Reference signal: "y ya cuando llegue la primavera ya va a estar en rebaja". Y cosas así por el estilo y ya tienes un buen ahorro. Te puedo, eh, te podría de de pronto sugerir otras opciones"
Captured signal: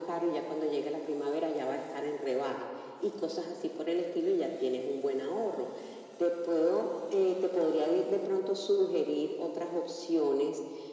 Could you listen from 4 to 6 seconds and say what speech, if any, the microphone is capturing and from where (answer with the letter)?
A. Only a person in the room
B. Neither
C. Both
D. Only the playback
D